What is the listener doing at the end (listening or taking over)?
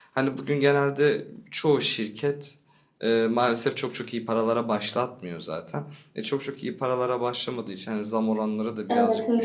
listening